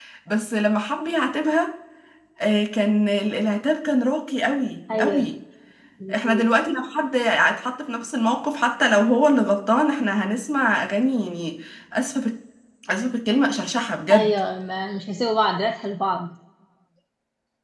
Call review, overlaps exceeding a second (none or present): none